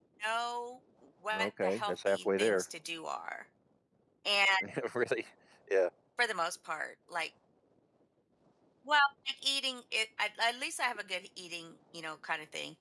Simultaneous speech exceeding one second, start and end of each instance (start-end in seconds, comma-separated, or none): 1.3-2.6